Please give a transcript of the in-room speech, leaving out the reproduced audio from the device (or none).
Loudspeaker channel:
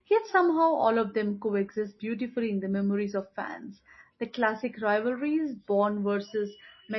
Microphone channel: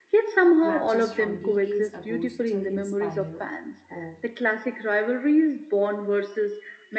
Matches from decades ago still inspire awe,